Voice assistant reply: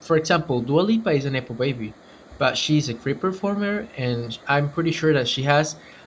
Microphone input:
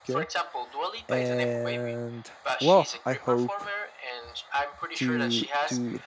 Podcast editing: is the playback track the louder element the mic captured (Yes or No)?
No